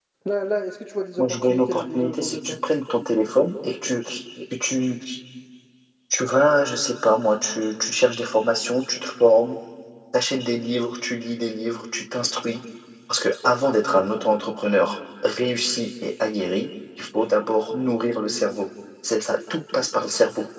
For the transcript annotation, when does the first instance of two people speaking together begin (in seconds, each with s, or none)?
1.2 s